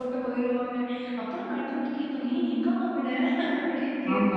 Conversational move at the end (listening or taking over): taking over